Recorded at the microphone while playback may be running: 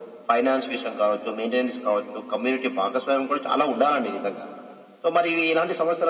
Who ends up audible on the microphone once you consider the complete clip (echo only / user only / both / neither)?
echo only